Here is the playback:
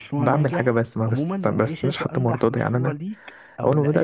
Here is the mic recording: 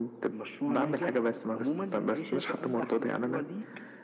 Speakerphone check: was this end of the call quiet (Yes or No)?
Yes